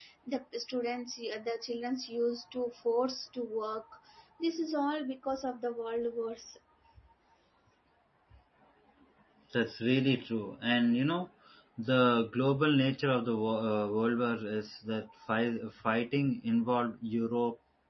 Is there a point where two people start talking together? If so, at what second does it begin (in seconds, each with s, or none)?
none